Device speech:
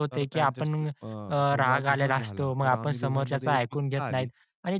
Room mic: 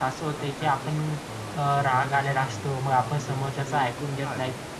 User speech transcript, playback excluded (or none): none